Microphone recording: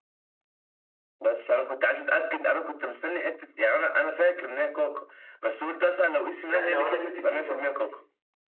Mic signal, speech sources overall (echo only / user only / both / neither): both